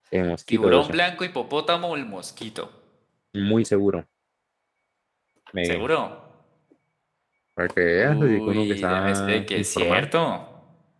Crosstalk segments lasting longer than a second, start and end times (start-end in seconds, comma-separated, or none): 8.0-10.1